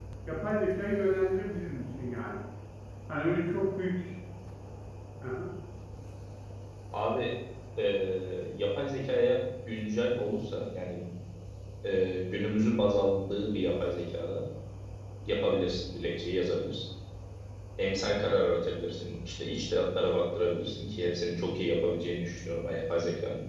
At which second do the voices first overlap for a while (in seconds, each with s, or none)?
none